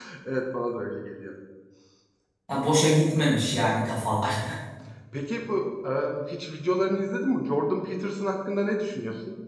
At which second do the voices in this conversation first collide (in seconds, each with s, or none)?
none